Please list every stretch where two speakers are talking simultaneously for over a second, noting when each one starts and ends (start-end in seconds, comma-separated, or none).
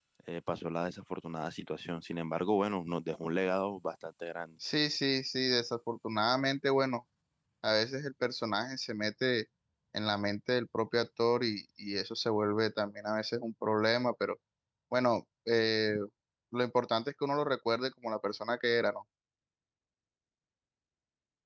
none